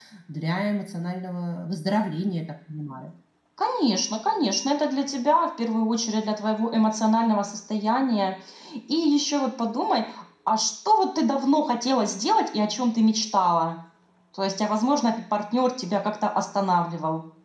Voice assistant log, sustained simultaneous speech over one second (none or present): none